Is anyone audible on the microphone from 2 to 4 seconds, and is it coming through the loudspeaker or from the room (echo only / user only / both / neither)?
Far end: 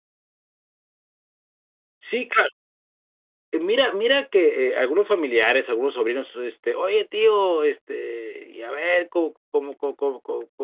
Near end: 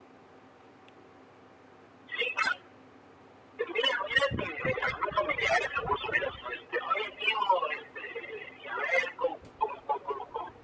echo only